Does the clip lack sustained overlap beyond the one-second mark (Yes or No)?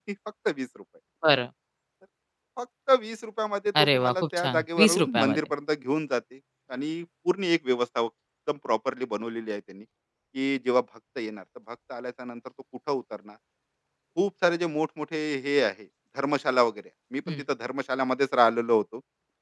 No